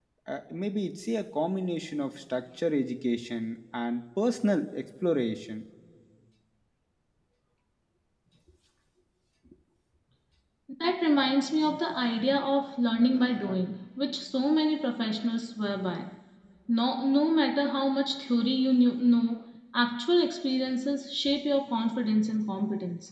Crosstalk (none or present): none